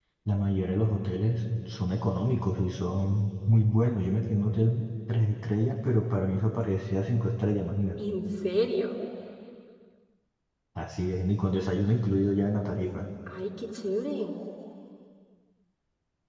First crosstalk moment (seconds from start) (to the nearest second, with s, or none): none